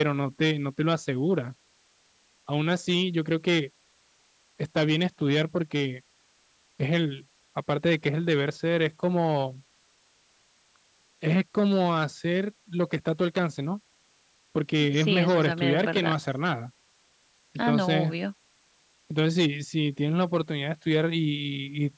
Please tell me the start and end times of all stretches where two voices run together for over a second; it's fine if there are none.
14.9-16.1

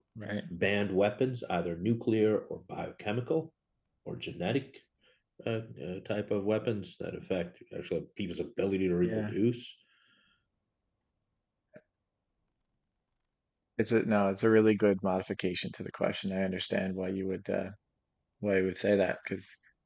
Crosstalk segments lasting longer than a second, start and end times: none

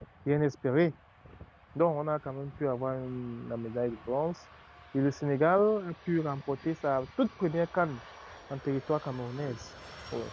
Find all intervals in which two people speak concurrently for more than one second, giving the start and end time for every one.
none

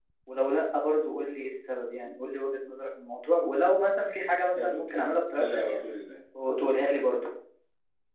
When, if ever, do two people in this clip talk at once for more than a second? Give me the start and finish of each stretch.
4.6-5.8

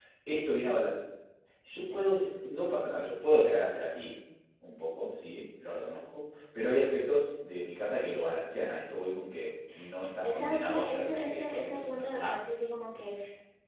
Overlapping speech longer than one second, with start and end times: 10.3-12.4

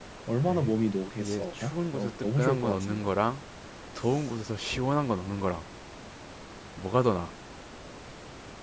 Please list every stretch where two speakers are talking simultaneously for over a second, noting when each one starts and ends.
1.2-3.1

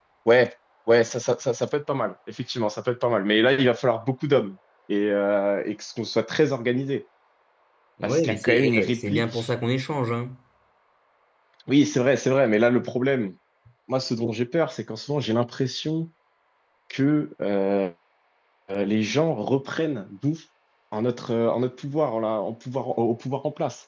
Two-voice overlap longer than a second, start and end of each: 8.0-9.5

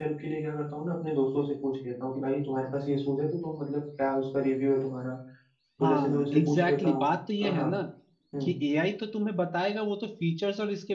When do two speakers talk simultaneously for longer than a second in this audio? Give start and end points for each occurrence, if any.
5.8-7.1

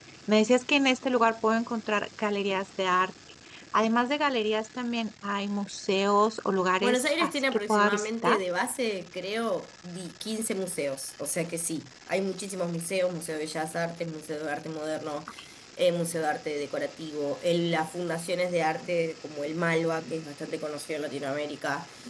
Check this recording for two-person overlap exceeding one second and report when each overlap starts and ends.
6.8-8.4

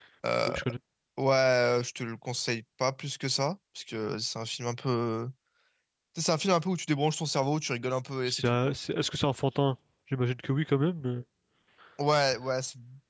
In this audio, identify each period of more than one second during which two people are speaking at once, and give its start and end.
none

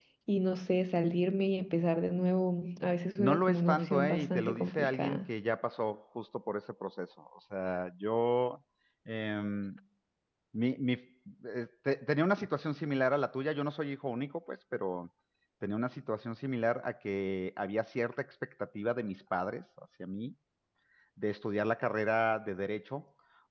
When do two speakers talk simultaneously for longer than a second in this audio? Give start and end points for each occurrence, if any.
3.2-5.3

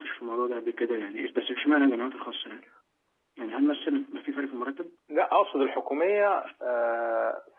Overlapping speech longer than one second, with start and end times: none

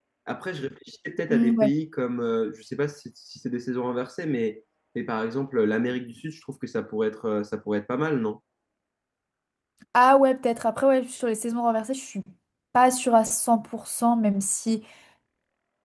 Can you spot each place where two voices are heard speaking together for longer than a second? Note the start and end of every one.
none

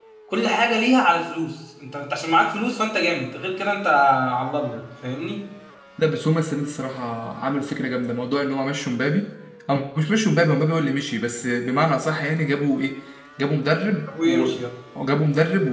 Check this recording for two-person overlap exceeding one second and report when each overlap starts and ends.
none

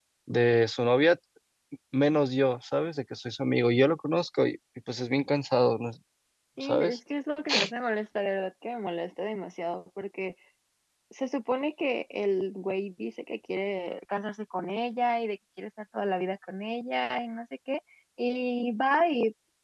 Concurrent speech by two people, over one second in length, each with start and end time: none

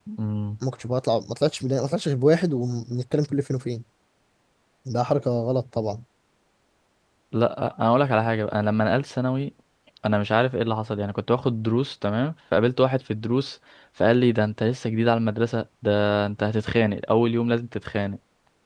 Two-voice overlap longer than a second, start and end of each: none

